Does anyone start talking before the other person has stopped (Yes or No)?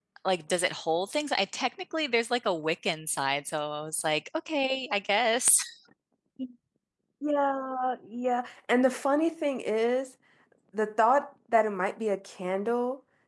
No